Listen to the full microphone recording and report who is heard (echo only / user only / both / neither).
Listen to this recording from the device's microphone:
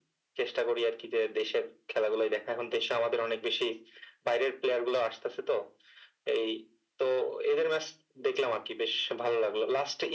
echo only